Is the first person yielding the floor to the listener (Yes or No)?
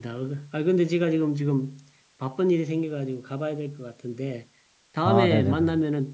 No